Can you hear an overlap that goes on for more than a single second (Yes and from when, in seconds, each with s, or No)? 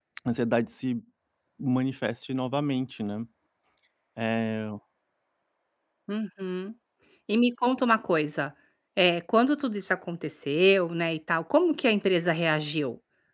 No